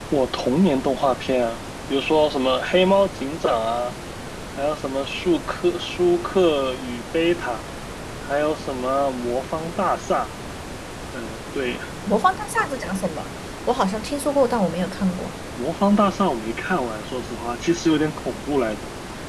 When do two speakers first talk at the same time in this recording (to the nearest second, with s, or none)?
none